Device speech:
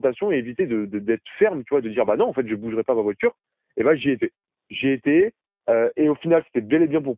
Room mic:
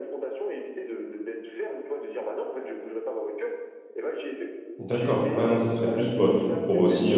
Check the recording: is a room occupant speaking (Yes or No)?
Yes